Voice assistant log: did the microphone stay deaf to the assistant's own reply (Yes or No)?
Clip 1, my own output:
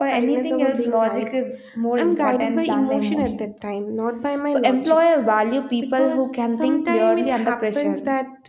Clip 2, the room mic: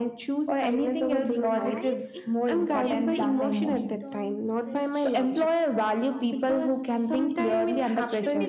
No